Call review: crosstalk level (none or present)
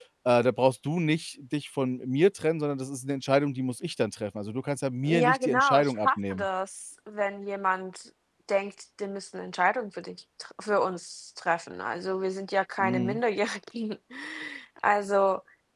present